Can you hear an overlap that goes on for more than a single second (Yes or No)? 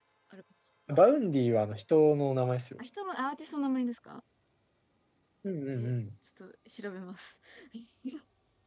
No